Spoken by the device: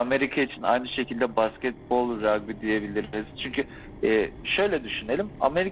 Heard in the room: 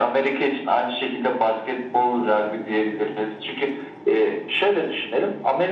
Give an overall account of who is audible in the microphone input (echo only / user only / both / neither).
echo only